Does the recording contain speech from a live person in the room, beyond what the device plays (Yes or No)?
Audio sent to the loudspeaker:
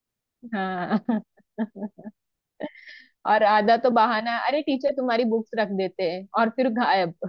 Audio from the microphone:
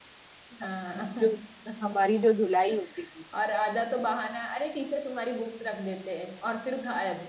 Yes